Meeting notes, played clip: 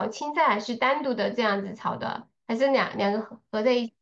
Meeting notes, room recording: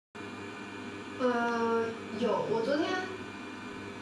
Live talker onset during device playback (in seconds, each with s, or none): 1.2 s